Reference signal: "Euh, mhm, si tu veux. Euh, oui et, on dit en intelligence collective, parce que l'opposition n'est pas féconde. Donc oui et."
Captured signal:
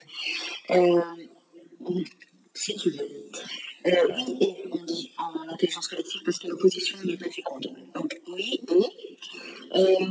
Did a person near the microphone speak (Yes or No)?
Yes